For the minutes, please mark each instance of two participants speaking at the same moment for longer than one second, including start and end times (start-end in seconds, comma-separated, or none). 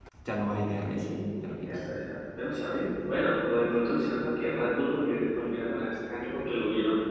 none